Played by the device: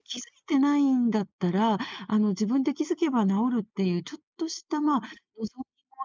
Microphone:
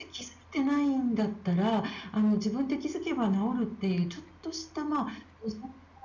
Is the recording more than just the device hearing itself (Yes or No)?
No